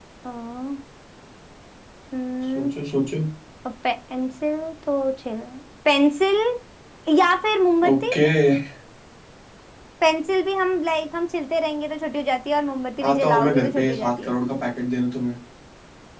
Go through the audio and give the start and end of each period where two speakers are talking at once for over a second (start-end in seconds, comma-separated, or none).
13.1-14.3